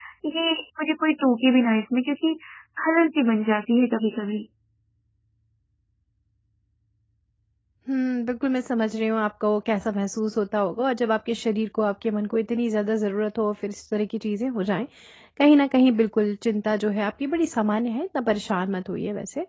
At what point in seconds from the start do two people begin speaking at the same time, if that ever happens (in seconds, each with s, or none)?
none